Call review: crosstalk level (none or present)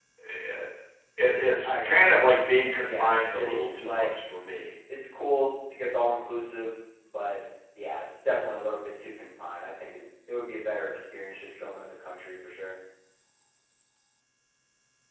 present